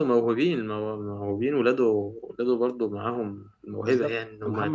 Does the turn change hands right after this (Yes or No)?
Yes